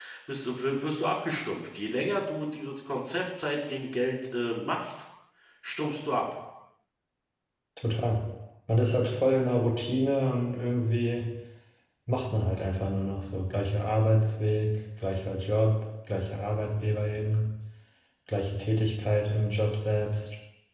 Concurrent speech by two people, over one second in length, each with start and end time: none

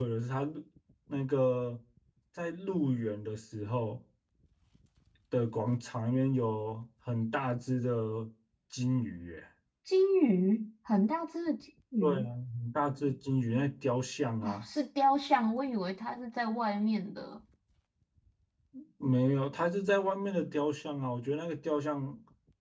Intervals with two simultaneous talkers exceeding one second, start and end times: none

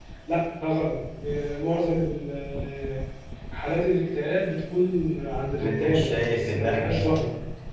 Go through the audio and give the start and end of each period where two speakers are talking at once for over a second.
5.6-7.1

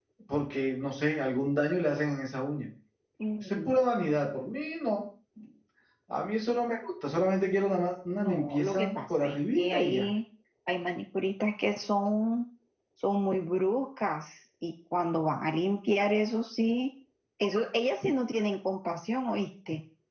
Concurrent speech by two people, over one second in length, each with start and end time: 8.2-10.1

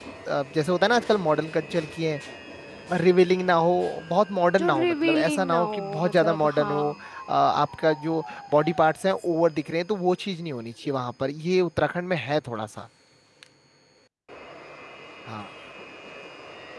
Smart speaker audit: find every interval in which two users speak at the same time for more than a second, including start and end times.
4.6-6.9

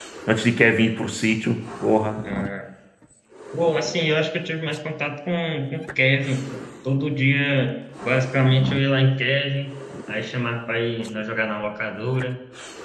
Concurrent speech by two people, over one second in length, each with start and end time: none

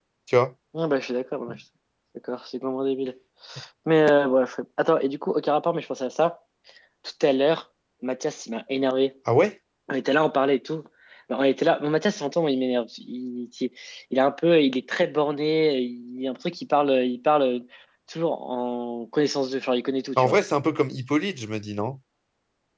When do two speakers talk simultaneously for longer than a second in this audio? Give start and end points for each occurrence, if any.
none

